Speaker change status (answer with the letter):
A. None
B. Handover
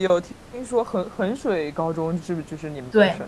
B